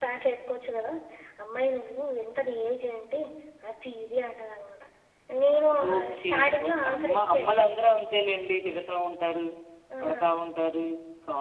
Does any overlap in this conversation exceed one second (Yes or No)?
Yes